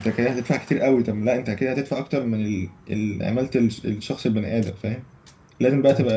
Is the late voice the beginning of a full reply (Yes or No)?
No